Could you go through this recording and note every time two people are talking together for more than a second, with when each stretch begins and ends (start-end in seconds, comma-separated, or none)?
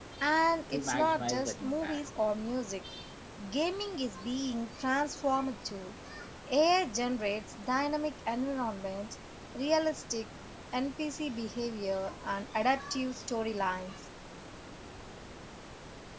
0.7-2.1